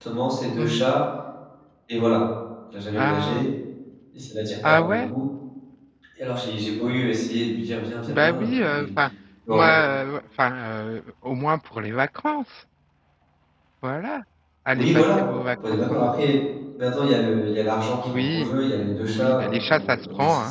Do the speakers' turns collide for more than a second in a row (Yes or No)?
Yes